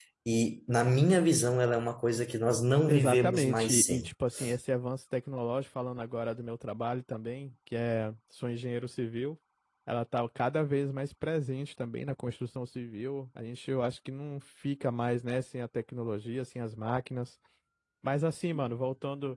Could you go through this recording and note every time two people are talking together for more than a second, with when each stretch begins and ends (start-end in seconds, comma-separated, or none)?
2.9-4.1